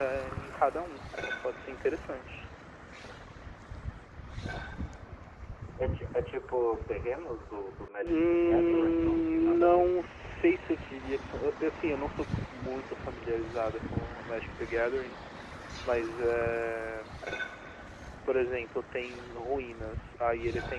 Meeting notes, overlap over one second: present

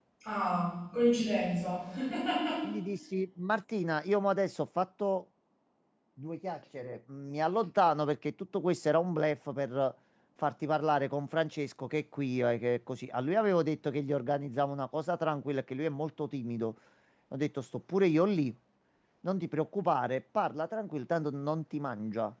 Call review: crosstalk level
none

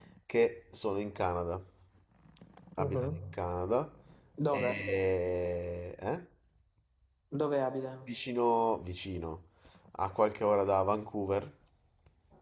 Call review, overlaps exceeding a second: none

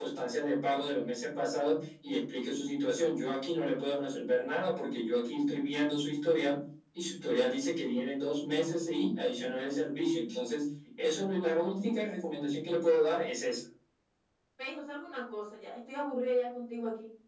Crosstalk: none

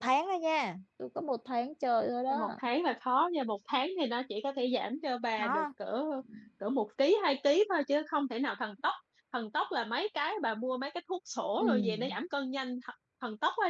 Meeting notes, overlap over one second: none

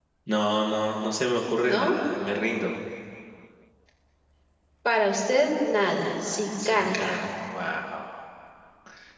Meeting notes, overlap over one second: none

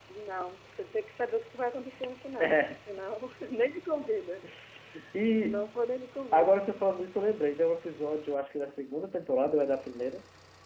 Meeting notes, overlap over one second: none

